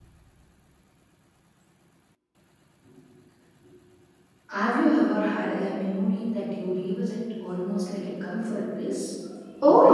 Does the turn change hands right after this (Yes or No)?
Yes